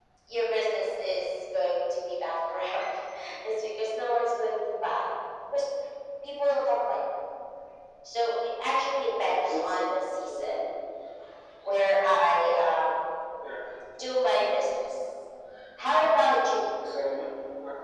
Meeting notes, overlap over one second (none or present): none